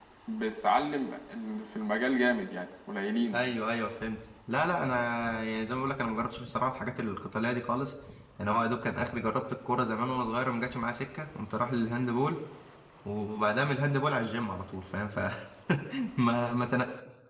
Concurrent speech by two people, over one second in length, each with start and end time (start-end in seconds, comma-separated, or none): none